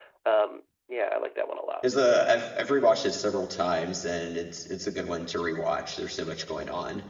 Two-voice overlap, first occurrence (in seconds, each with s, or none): none